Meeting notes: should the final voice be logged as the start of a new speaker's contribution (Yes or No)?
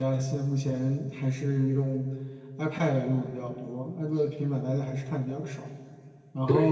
Yes